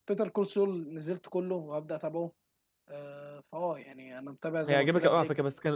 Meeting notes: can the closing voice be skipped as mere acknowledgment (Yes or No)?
No